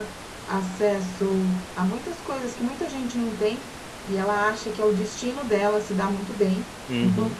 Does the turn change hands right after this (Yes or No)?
No